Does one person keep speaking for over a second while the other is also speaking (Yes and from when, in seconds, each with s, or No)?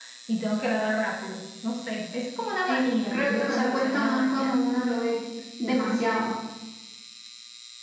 Yes, from 2.7 s